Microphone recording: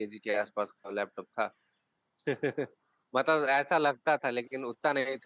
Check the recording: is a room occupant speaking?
Yes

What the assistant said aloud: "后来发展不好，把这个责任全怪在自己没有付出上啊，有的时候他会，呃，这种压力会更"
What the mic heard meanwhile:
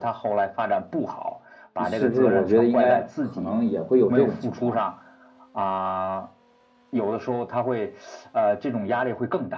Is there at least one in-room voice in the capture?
Yes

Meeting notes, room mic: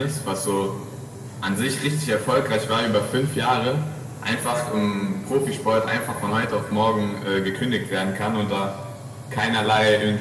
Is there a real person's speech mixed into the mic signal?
No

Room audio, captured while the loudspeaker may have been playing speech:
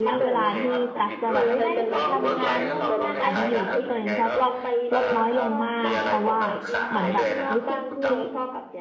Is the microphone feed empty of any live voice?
No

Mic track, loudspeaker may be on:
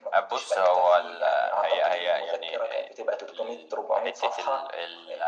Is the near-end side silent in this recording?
Yes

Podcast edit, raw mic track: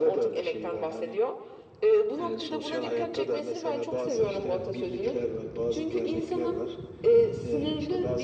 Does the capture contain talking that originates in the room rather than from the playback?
No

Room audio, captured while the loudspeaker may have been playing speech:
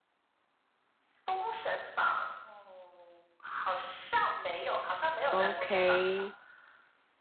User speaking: Yes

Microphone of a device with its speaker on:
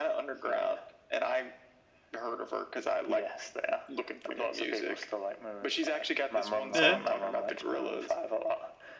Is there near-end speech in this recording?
Yes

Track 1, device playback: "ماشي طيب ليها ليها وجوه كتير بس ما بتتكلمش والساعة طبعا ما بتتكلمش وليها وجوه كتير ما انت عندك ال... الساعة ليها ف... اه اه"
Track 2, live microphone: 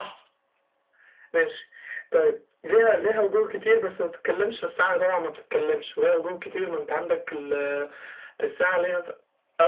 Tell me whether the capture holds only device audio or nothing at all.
Yes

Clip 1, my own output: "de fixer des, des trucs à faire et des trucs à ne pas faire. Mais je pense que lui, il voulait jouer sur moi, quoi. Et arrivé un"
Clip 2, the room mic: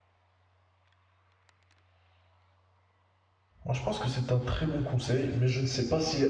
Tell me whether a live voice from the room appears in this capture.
Yes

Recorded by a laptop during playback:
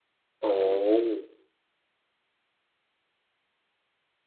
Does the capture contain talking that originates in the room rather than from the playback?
Yes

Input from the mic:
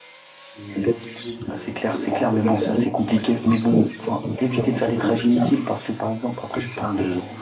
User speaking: Yes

